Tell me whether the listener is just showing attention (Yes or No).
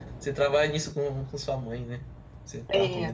No